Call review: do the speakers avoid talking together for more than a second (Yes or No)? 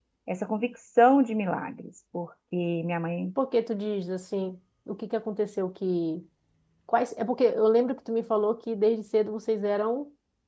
Yes